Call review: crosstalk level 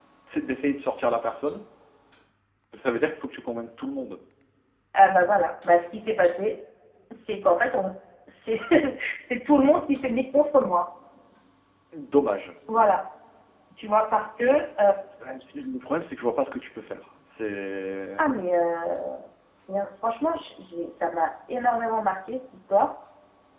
none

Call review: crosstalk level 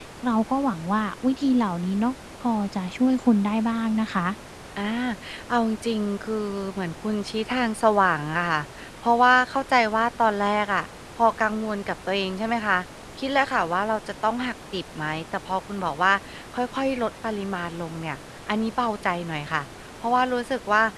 none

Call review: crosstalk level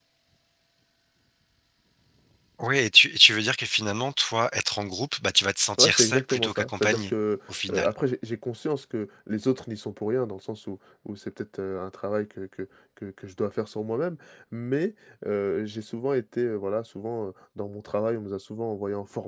present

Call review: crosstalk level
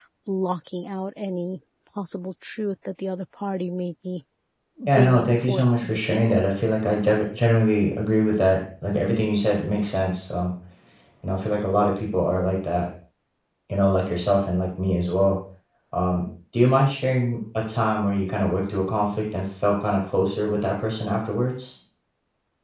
present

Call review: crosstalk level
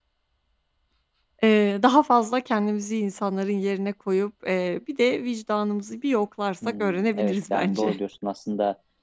present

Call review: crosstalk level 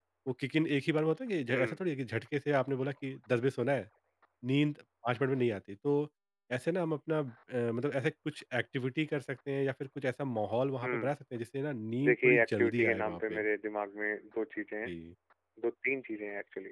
present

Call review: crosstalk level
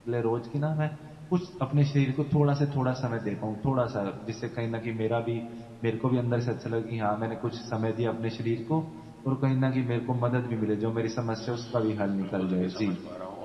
present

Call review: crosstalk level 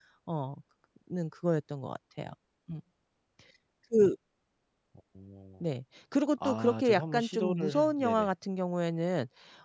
present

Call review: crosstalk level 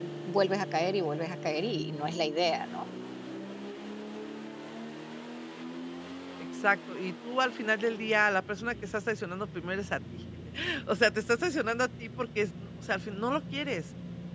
none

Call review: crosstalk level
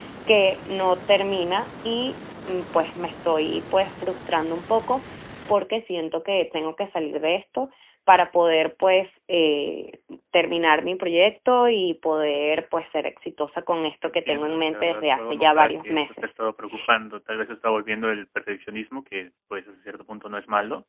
present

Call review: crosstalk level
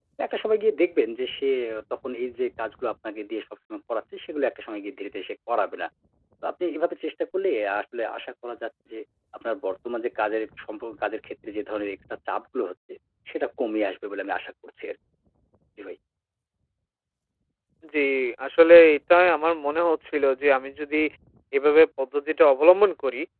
none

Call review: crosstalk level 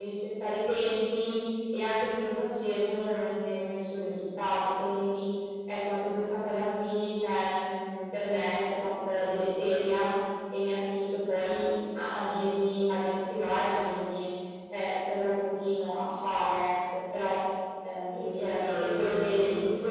present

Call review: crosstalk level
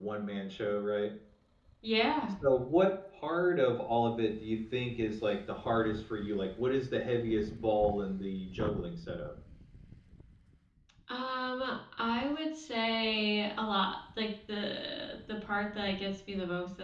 none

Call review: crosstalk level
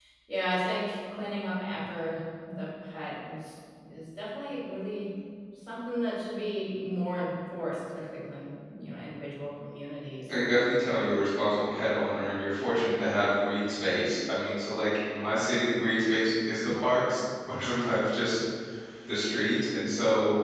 none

